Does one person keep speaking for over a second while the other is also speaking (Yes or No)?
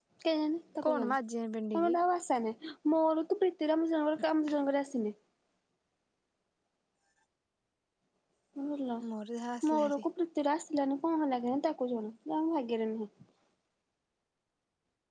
No